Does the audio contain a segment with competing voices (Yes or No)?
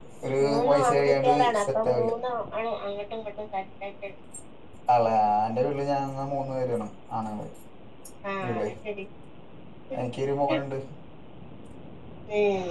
Yes